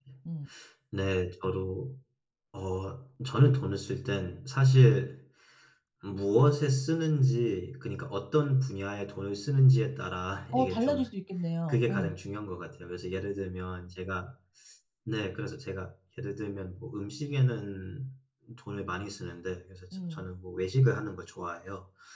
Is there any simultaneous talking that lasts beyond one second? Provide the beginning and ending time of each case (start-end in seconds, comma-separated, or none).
none